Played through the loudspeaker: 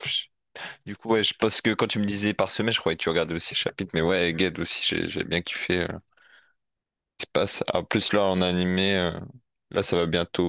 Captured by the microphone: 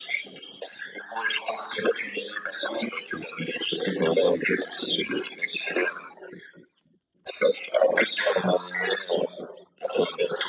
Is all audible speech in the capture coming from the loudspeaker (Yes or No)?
Yes